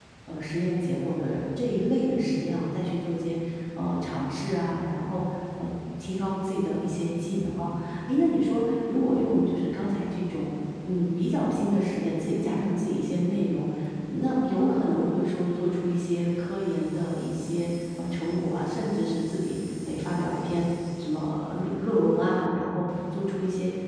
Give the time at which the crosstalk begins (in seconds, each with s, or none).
none